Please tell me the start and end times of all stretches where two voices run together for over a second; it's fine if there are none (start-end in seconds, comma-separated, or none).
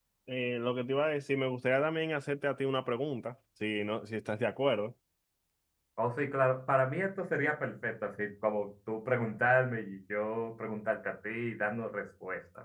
none